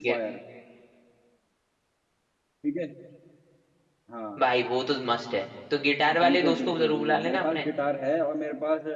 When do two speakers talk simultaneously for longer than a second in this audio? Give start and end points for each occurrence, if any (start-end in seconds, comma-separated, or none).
6.2-7.7